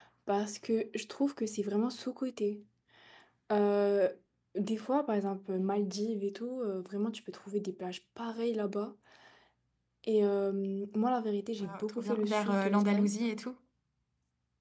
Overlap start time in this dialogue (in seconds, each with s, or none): 11.6 s